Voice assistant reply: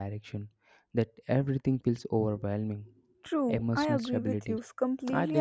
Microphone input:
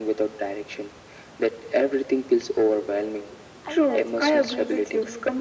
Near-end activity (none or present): present